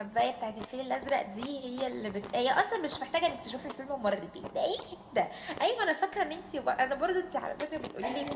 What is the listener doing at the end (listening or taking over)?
listening